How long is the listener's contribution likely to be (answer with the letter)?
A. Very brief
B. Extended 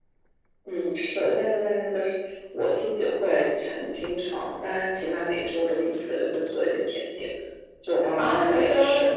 B